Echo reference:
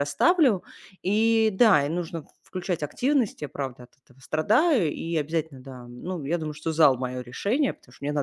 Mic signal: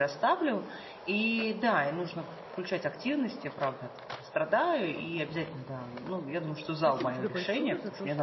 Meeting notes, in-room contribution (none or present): present